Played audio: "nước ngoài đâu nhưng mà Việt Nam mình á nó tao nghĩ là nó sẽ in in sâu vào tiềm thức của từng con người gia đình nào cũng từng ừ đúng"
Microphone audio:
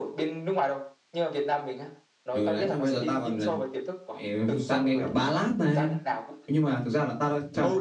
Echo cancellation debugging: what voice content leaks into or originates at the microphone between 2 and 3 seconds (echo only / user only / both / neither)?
both